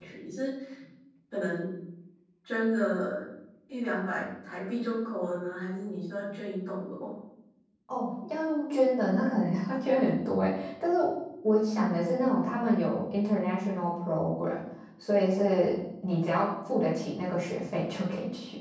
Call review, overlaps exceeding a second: none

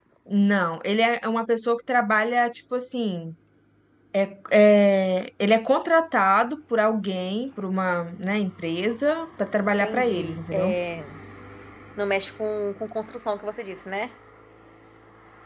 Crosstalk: present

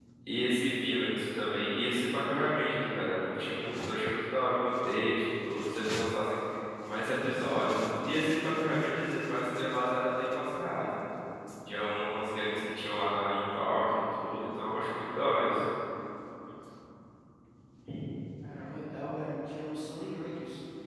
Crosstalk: none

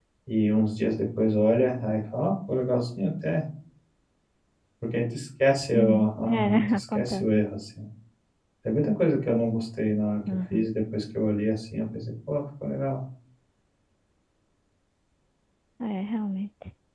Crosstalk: present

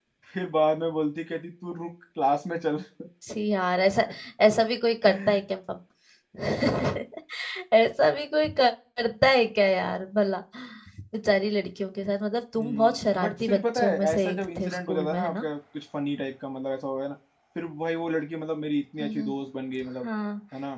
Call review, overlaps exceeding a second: present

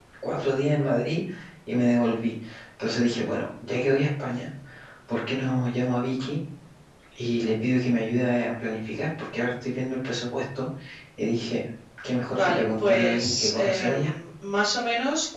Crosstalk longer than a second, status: present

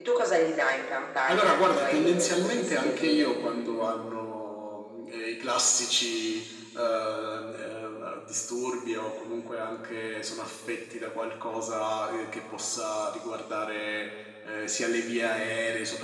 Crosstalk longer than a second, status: present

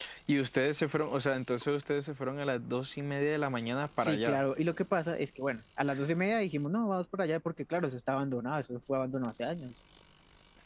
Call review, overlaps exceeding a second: none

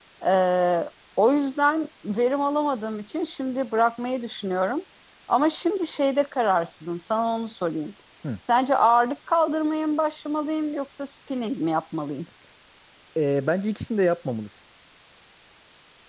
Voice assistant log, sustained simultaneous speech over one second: none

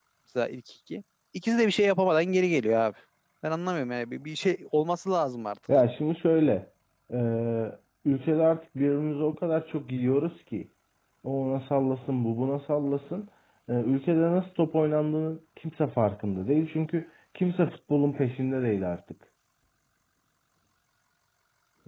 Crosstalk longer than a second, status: none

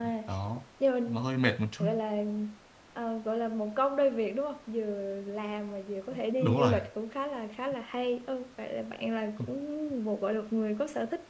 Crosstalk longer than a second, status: none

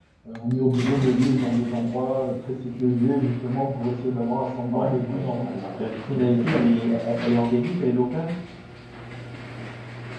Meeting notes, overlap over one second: present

